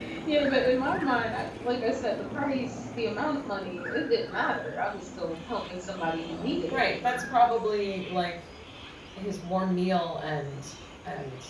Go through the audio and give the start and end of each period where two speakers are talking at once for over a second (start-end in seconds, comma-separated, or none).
none